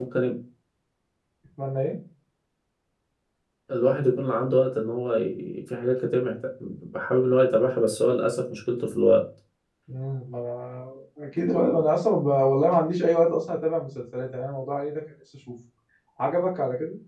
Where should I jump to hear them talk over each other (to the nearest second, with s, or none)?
none